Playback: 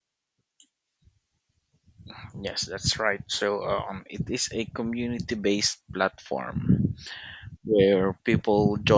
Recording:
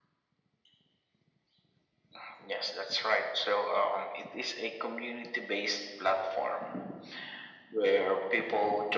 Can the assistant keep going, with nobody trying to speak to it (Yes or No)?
Yes